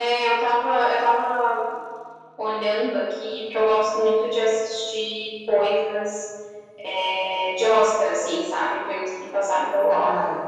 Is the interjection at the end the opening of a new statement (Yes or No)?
Yes